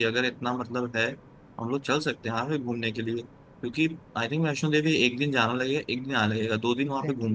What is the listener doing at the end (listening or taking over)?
taking over